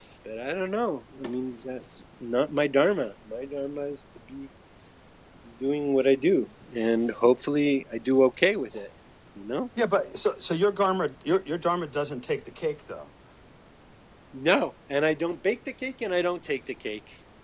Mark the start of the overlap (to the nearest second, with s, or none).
none